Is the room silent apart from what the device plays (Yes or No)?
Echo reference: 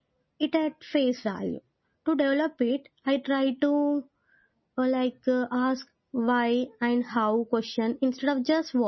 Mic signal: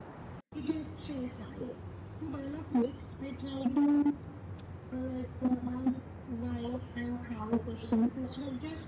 Yes